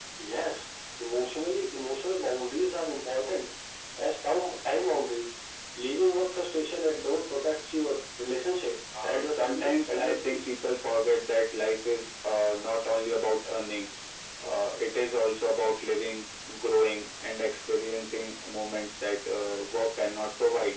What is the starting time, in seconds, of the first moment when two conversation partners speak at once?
9 s

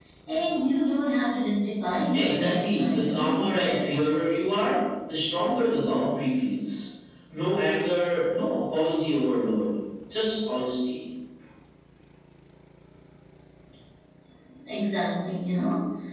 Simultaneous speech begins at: 2 s

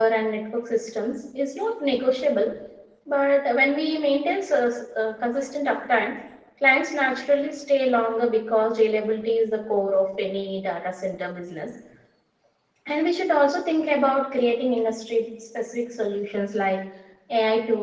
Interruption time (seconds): none

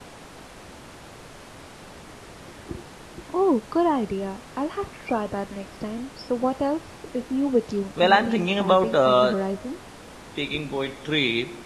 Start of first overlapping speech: 8 s

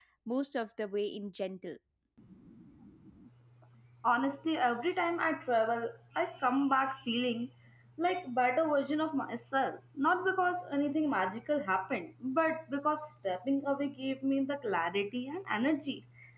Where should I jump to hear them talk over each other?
none

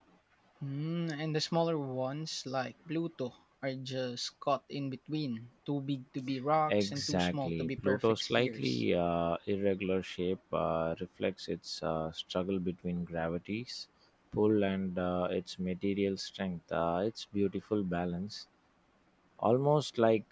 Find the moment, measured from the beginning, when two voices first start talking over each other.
7 s

